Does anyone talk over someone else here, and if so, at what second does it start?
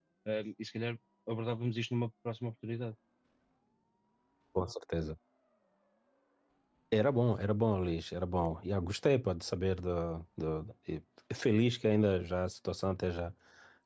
none

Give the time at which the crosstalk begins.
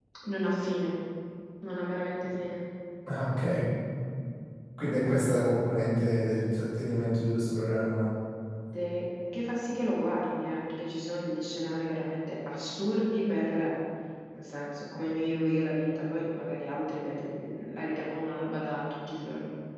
none

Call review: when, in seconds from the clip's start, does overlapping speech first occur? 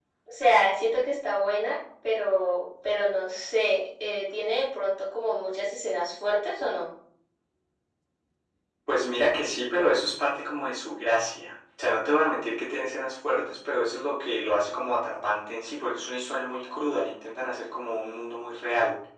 none

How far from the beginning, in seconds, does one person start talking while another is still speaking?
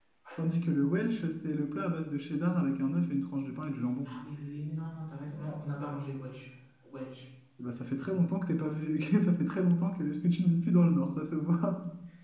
none

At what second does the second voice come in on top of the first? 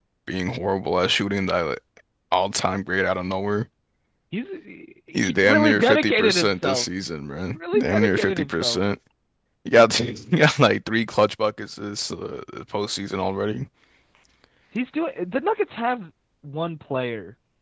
5 s

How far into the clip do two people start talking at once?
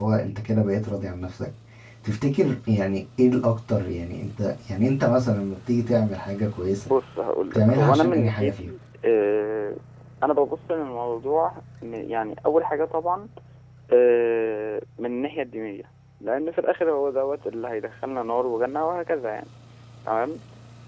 8 s

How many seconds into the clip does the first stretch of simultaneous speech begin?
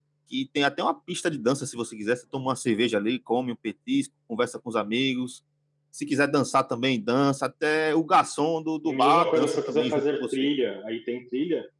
9 s

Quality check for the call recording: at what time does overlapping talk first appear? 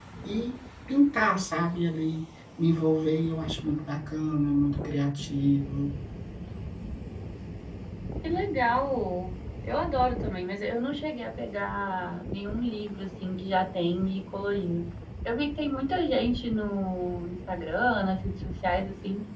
none

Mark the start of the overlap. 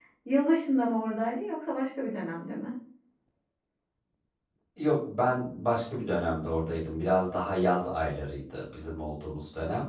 none

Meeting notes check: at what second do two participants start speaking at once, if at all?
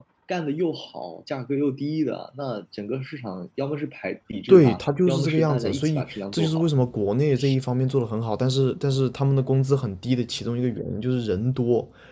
4 s

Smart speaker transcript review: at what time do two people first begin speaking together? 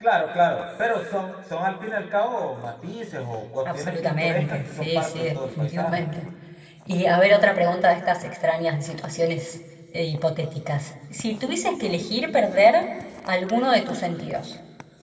4 s

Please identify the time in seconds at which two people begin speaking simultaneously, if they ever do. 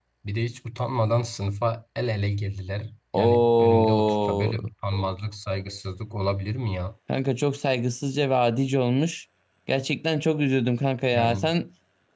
3 s

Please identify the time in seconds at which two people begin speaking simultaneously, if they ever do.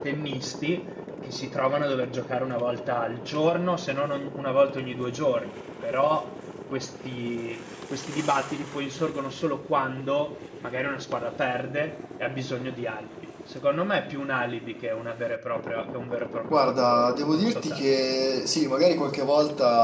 17 s

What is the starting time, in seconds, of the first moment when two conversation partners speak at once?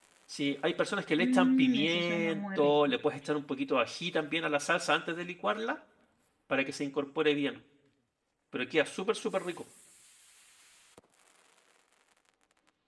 1 s

